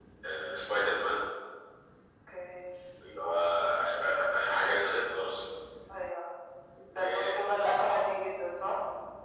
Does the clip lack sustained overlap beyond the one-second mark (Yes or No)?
Yes